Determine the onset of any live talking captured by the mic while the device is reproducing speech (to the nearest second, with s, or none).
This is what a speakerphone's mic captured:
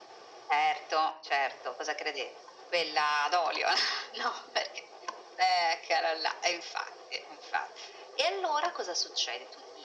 none